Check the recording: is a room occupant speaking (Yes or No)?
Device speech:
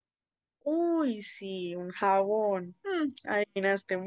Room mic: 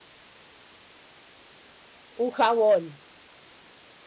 Yes